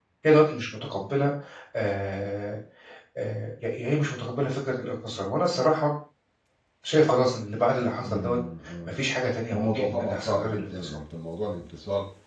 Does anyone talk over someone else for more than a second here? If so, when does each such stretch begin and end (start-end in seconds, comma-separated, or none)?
9.5-11.0